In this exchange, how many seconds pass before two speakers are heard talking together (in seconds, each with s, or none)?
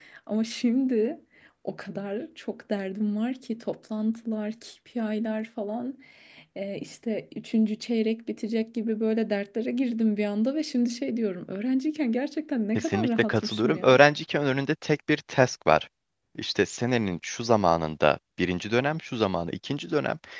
12.8 s